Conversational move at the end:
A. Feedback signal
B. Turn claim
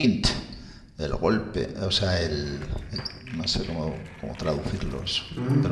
B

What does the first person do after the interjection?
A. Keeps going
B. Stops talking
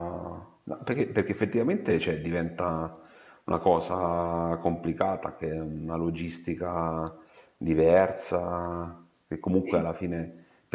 A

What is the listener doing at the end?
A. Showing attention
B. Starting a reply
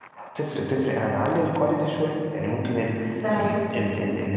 A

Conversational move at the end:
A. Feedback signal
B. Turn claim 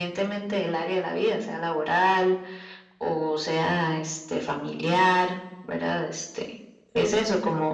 A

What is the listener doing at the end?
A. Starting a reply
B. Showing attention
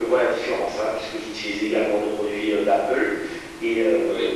B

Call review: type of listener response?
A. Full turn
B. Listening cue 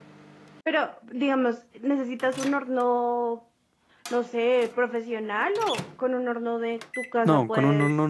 A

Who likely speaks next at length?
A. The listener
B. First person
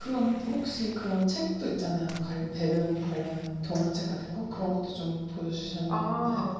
A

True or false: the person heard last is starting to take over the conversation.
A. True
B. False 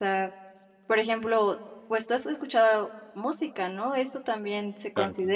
B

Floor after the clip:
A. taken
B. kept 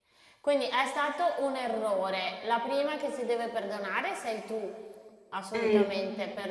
B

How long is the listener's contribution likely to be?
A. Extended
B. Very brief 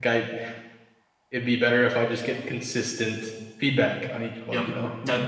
A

